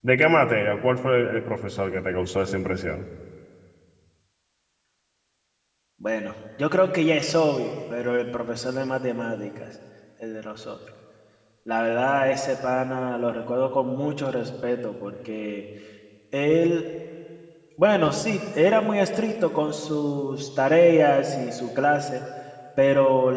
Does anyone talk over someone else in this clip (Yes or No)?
No